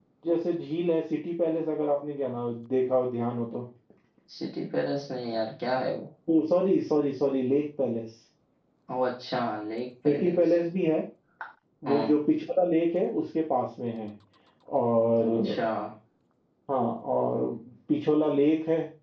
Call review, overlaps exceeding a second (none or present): none